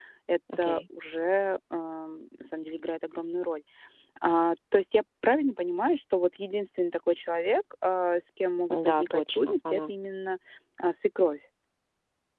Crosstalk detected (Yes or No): Yes